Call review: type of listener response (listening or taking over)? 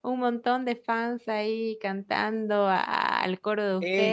taking over